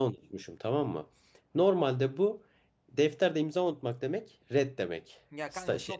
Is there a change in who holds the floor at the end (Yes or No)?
Yes